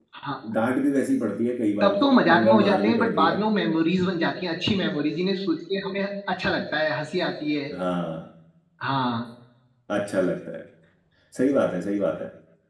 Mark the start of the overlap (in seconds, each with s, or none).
1.8 s